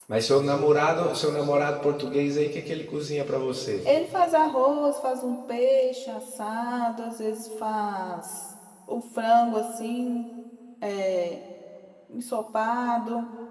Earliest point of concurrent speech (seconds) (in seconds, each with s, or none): none